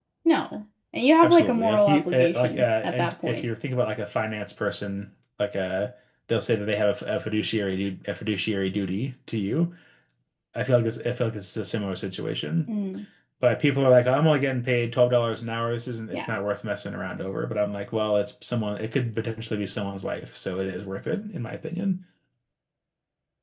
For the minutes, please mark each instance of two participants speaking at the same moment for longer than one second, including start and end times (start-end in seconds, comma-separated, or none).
1.2-3.5